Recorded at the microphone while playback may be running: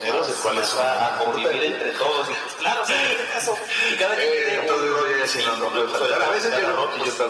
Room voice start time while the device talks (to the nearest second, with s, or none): none